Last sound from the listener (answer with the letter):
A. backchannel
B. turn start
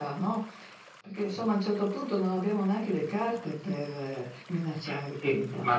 B